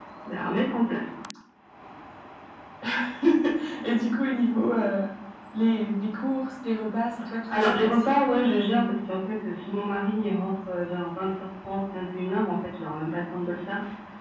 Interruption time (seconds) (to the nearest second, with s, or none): 8 s